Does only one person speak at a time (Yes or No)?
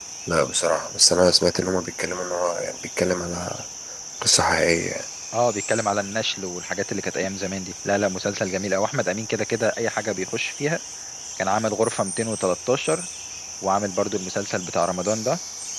Yes